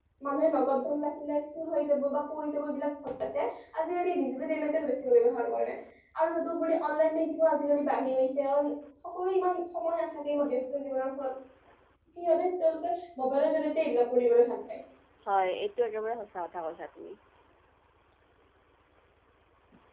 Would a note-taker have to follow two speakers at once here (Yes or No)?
No